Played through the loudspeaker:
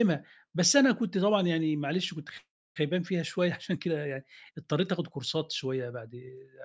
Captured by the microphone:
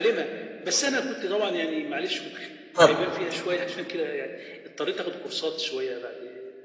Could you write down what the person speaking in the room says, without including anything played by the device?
اتفضل.

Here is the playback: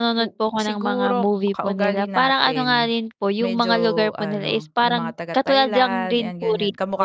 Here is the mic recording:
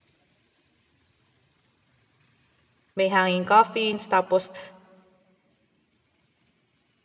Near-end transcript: may hanging coffins, tapos

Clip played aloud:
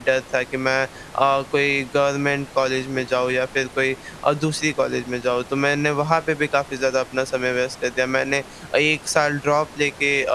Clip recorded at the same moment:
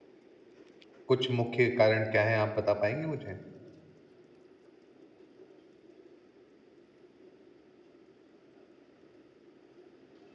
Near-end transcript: कुछ मुख्य कारण क्या है? आप बता पाएँगी मुझे?

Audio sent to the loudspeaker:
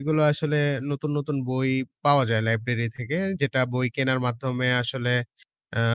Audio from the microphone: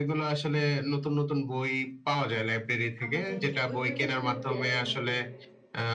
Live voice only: আমাদেরকে ওই বইটা ফেরত দিয়ে আসতে হবে।

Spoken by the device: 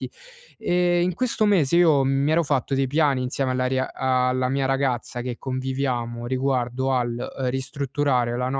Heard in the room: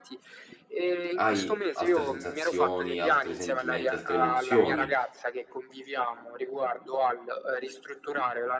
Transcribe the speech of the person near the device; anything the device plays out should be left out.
hai altre sensazioni, altri sentimenti, altre emozioni

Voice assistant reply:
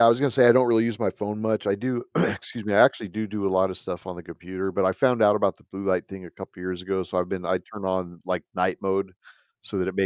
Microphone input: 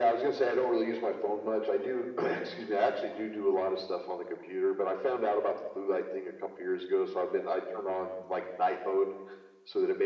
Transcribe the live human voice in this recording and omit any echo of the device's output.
none

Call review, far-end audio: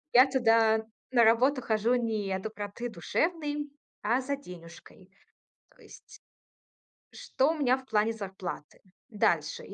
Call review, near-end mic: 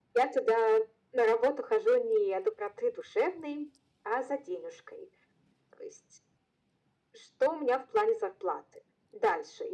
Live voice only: none

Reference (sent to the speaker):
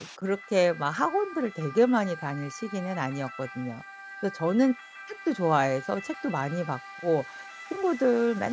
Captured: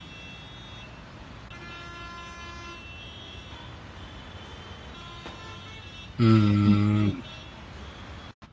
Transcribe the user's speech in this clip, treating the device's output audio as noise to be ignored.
음.

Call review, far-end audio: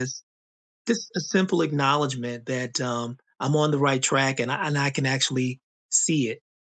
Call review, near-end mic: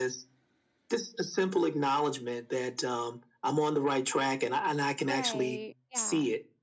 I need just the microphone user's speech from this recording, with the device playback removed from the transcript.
Right, yeah.

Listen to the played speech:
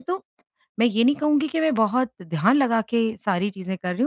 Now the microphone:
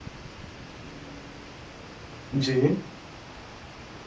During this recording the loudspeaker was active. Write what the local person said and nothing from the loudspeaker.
जी।

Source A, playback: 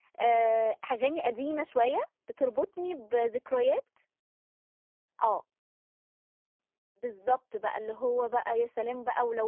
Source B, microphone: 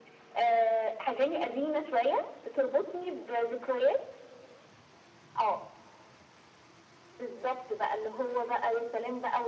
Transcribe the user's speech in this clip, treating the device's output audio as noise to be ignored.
none

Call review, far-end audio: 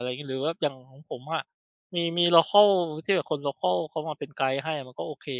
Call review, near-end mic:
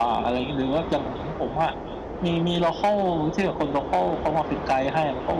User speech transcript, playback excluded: none

